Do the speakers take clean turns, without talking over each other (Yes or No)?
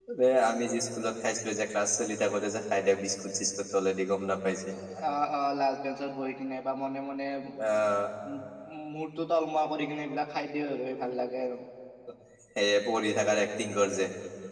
Yes